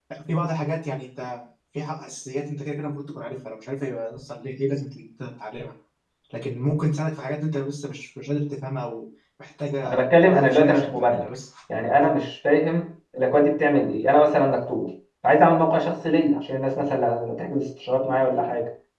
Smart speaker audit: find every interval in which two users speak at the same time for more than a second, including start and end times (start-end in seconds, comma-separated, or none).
9.9-11.2